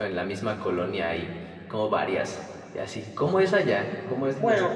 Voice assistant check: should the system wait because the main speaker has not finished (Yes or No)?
No